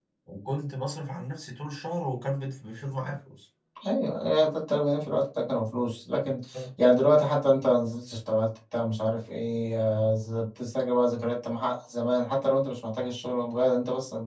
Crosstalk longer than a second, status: none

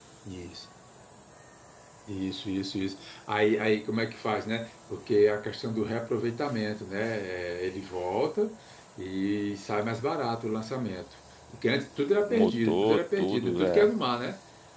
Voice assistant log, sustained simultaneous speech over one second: present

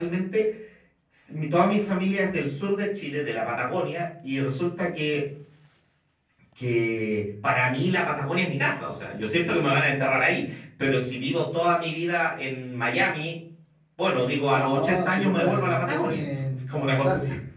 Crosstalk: present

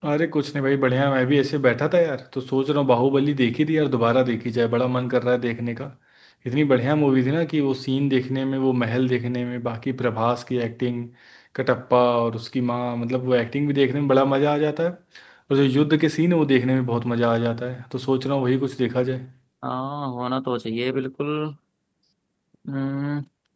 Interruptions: none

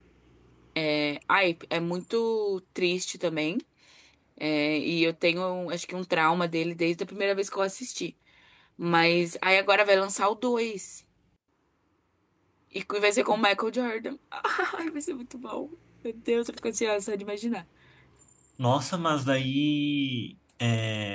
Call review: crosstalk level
none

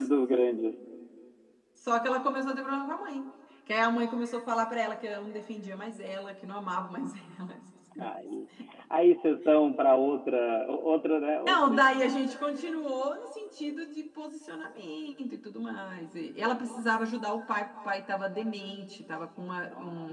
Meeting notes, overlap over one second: none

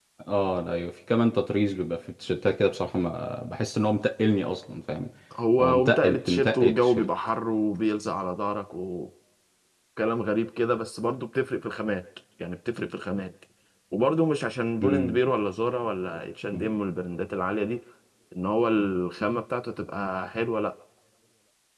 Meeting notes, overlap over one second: present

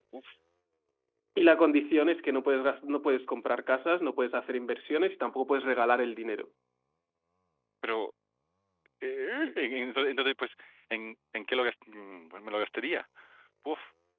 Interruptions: none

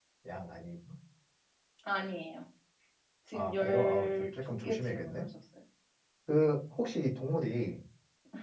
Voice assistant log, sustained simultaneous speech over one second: present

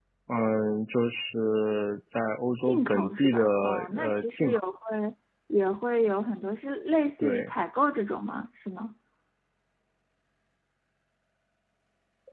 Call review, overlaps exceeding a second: present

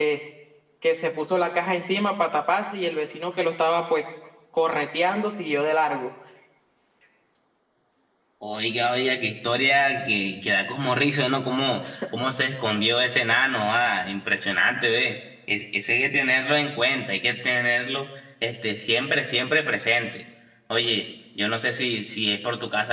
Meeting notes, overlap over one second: none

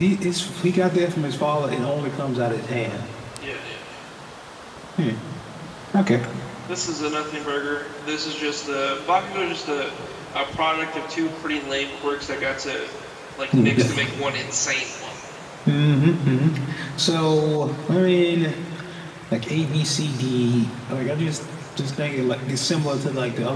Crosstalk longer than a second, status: none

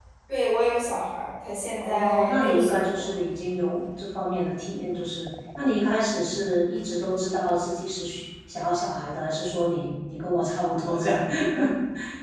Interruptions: present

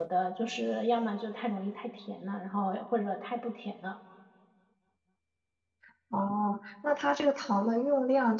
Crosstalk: none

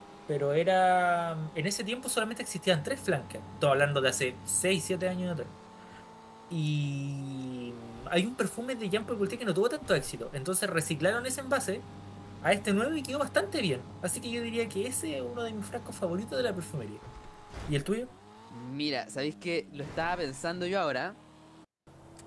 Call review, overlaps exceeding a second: none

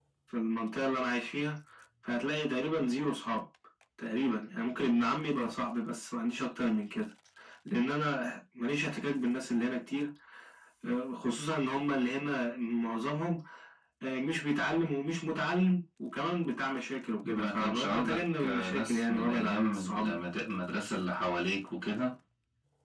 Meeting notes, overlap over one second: present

